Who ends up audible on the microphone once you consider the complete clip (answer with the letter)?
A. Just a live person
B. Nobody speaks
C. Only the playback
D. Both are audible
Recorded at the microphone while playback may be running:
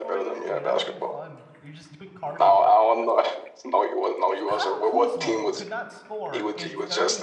D